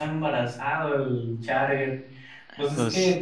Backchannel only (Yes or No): Yes